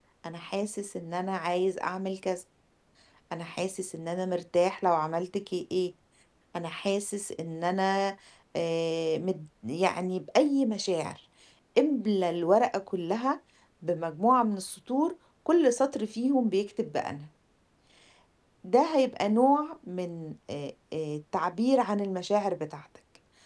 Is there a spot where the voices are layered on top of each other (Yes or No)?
No